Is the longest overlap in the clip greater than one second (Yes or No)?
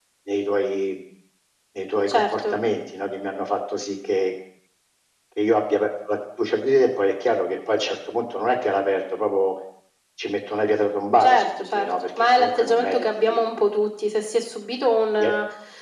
Yes